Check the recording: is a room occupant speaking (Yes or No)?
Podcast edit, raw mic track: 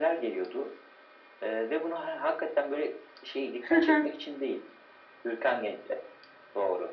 Yes